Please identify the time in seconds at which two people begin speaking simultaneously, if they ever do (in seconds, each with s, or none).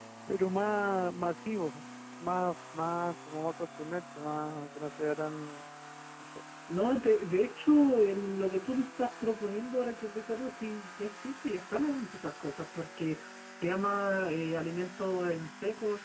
none